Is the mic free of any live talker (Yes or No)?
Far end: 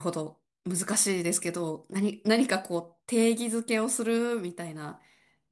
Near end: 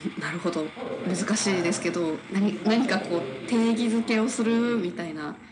No